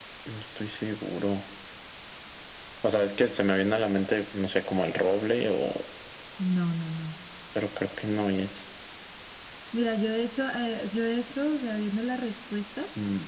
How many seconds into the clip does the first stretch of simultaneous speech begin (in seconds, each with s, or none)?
none